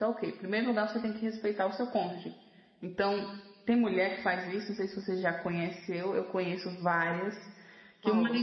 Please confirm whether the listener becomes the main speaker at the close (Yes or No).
No